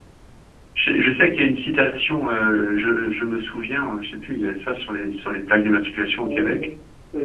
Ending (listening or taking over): taking over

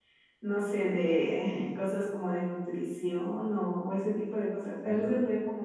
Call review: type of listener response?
listening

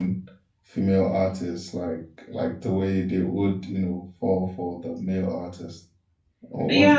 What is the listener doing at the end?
taking over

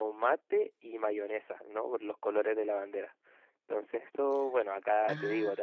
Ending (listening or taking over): listening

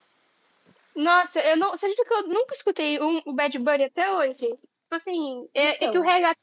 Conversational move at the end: listening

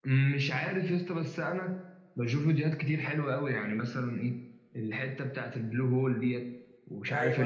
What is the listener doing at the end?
taking over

